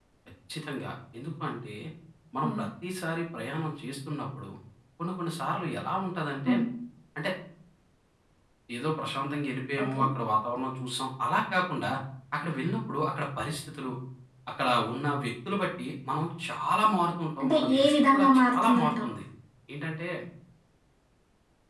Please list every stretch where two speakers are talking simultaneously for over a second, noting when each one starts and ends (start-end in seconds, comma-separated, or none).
17.4-19.1